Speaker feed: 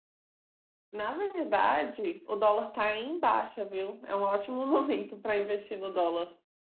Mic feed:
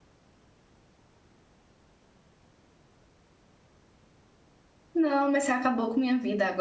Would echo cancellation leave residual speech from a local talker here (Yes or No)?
Yes